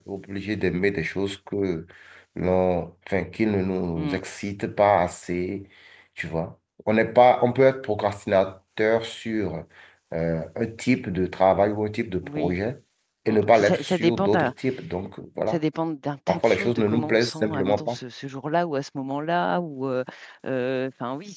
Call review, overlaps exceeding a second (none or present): present